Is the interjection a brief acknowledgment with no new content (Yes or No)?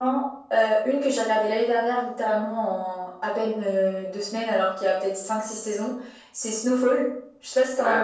No